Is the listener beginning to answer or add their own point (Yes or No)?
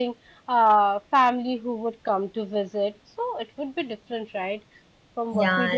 No